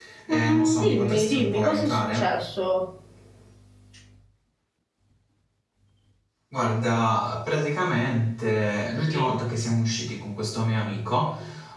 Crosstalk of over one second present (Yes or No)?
Yes